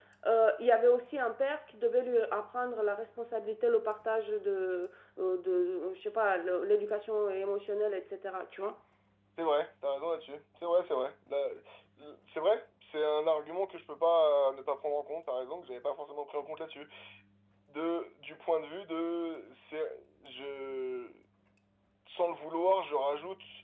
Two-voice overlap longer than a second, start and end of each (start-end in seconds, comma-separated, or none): none